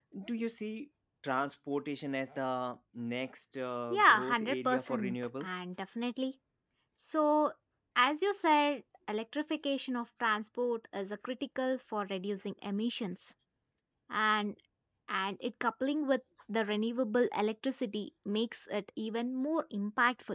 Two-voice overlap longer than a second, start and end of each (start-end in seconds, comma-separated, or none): 3.9-5.5